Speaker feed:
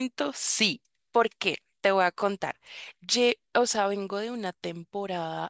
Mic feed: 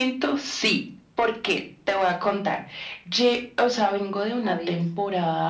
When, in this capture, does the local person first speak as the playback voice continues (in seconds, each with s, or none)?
4.4 s